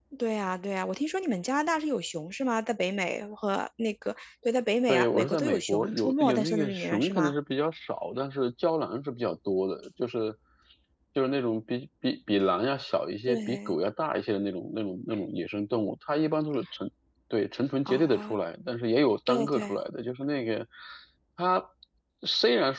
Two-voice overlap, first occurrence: 4.9 s

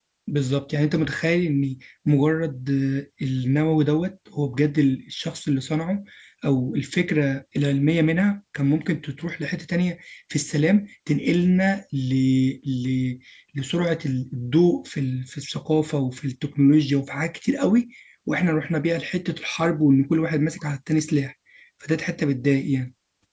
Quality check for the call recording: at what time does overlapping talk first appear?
none

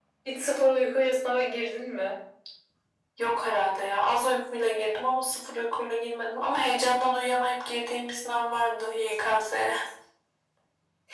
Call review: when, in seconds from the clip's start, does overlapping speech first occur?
none

